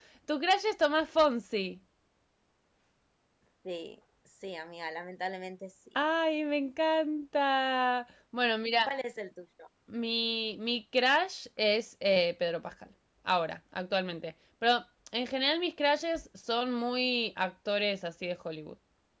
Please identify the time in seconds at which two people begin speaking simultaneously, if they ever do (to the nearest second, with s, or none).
none